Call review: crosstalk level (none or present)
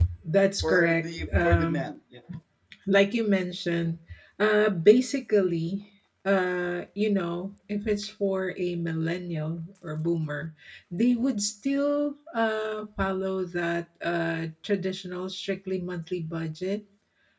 present